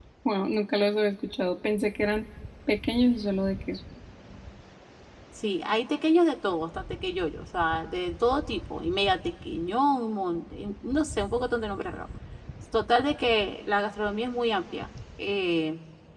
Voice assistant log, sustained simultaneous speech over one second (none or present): none